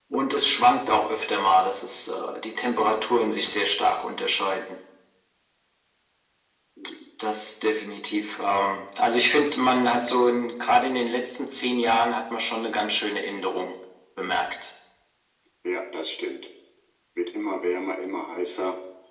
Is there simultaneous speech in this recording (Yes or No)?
No